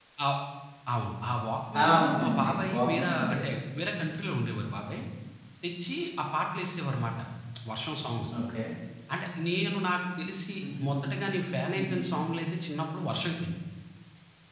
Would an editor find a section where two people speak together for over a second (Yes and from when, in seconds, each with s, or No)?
Yes, from 1.8 s